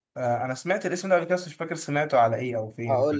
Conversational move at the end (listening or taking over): taking over